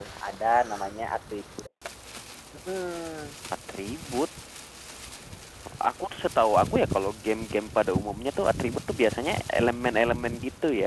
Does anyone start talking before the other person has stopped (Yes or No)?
No